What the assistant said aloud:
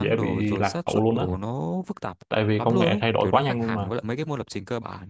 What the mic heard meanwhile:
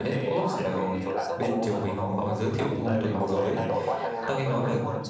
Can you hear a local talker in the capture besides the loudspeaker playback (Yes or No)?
Yes